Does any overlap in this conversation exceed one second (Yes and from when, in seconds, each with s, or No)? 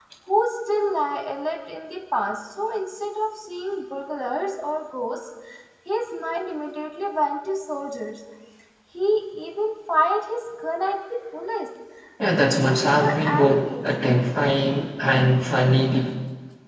Yes, from 12.4 s